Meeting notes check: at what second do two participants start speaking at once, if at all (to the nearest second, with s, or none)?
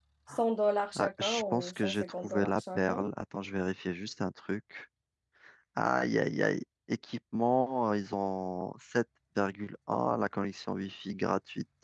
1 s